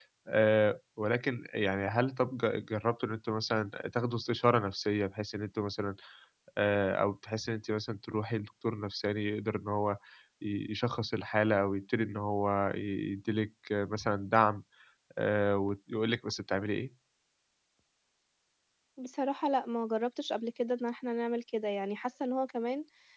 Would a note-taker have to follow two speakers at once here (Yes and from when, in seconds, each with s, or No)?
No